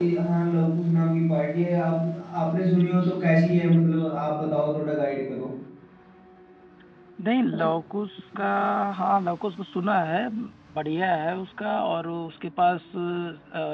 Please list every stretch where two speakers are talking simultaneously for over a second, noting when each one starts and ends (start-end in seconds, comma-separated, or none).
none